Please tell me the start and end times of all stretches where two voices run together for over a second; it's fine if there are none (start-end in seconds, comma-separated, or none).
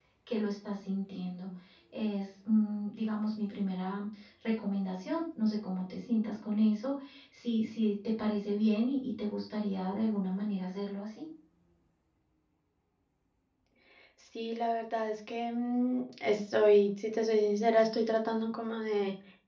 none